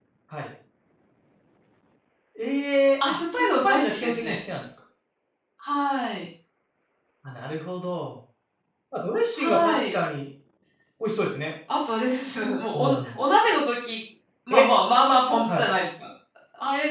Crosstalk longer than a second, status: present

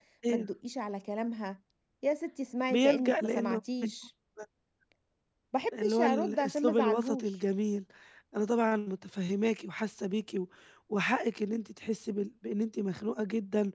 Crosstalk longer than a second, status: present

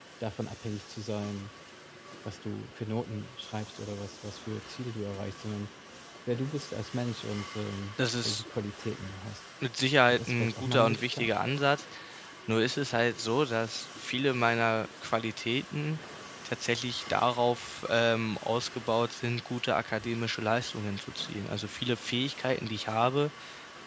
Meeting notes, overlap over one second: present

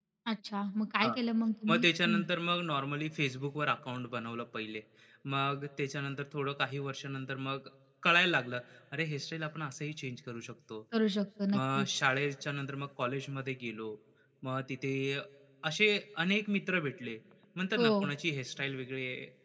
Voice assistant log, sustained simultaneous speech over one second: none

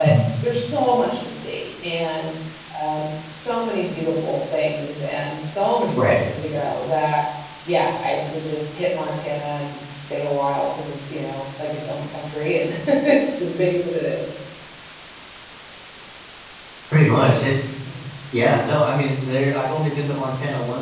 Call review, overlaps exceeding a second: none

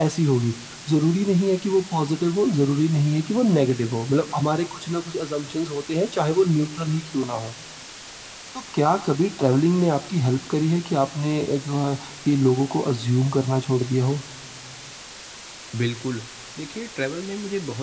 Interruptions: none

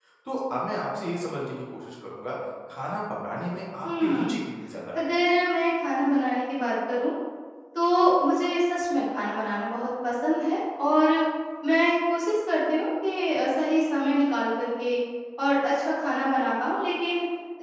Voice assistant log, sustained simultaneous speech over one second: none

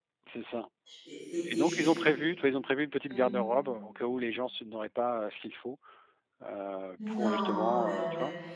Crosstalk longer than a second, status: present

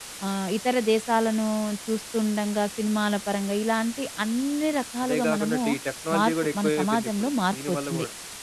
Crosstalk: present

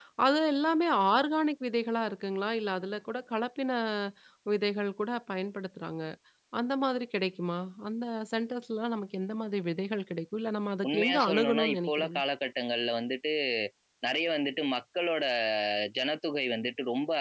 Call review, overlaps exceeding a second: present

